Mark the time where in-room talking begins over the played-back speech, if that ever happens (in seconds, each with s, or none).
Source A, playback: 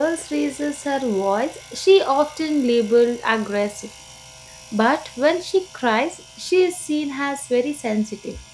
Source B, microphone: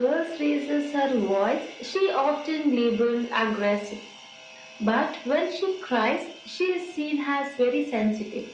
none